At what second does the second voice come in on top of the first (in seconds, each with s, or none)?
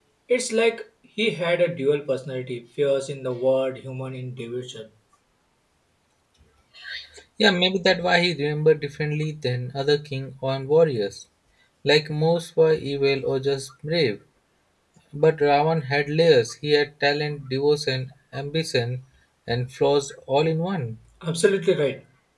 none